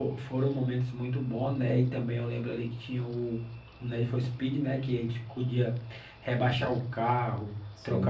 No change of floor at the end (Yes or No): Yes